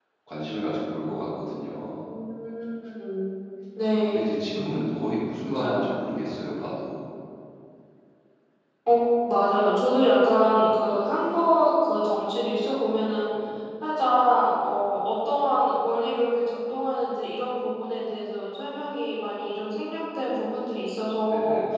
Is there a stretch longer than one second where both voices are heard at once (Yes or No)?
No